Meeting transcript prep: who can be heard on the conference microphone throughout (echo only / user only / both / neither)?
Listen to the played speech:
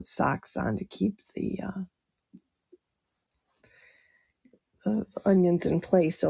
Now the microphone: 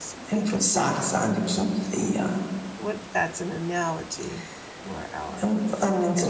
both